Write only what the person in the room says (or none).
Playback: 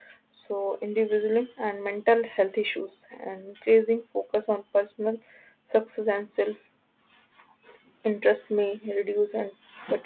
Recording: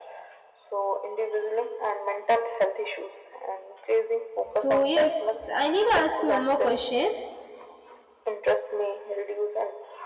So, yes, I need to ask you one more question.